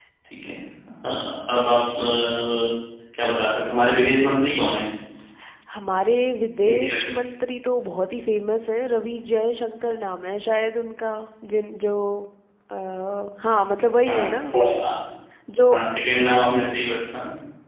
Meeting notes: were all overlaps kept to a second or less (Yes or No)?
Yes